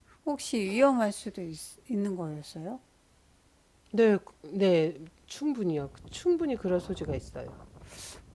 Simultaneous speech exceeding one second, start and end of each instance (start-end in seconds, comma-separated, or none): none